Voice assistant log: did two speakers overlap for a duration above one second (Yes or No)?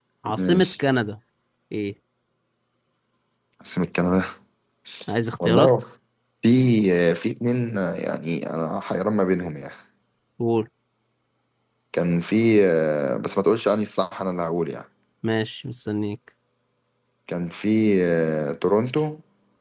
No